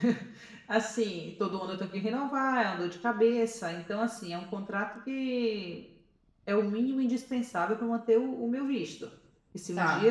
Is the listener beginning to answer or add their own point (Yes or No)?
No